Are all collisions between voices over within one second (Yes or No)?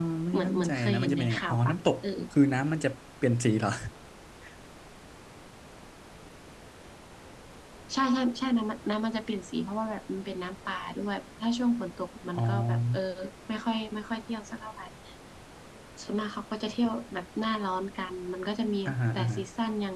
No